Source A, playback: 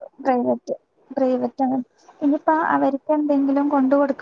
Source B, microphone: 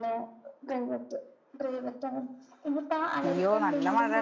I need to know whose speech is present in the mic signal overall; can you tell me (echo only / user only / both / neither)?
both